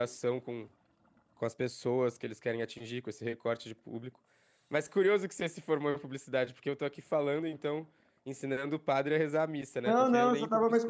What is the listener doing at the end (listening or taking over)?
taking over